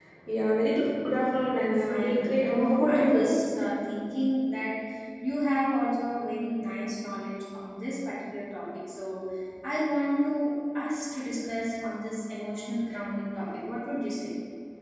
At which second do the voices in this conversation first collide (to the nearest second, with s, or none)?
2 s